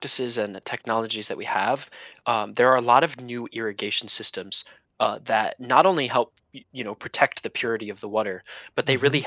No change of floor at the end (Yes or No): Yes